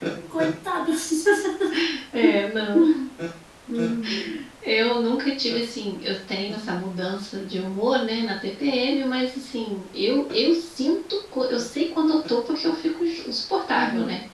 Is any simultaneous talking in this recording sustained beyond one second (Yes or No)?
No